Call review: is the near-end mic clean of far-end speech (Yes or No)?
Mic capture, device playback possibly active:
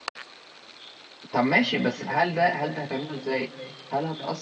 Yes